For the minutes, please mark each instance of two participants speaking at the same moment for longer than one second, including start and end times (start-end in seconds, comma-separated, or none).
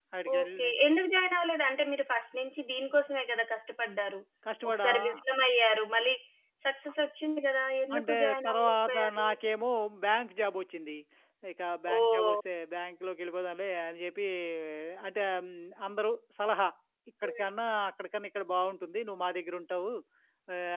7.9-9.3